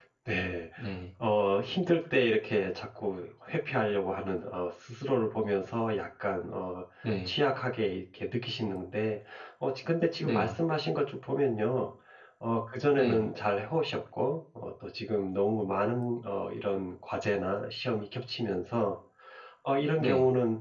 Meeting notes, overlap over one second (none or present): none